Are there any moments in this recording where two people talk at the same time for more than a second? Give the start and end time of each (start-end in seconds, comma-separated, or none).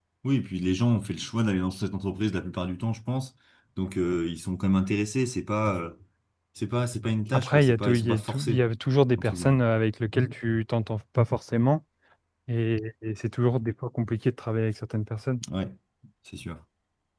7.3-8.6